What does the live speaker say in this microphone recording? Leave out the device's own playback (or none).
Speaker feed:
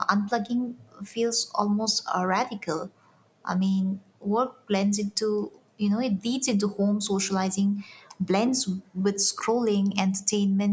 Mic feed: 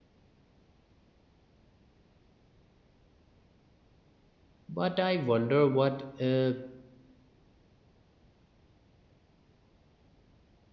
but I wonder what uh,